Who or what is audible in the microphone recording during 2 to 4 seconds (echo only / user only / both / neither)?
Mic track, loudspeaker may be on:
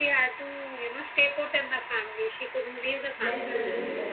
both